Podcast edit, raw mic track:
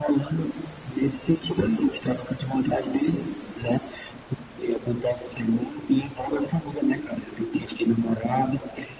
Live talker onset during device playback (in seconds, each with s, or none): none